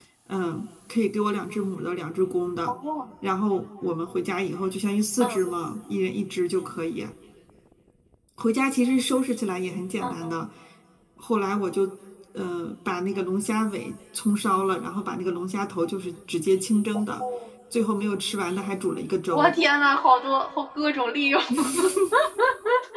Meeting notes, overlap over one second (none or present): none